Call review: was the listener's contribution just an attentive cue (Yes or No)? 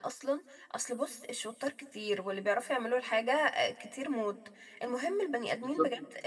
Yes